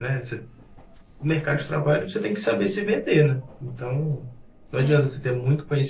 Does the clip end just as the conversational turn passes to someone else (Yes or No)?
No